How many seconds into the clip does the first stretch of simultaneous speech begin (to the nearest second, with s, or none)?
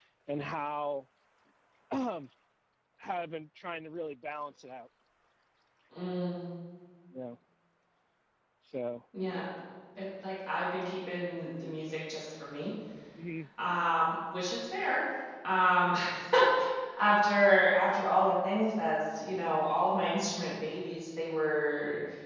none